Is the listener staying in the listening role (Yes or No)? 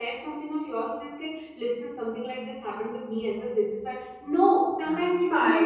Yes